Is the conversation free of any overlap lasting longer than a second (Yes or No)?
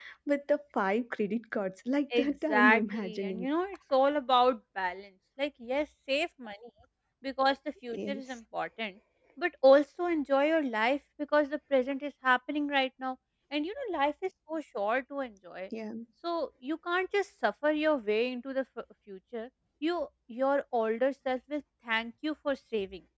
No